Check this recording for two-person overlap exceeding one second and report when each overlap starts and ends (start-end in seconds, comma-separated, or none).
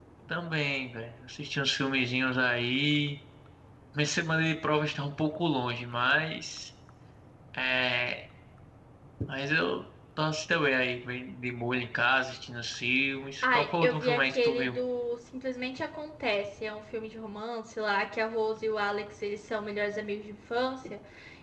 13.4-14.8